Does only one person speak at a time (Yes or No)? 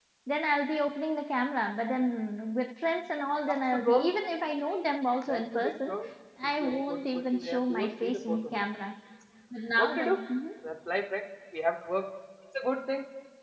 No